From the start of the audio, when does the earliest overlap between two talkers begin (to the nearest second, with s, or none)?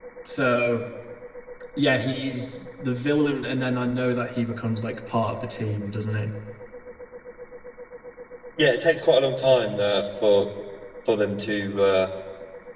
none